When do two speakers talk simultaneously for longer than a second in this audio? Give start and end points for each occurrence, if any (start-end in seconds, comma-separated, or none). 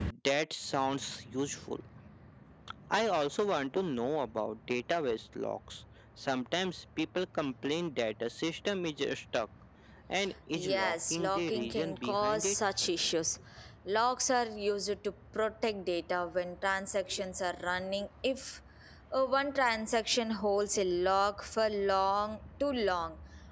10.5-12.6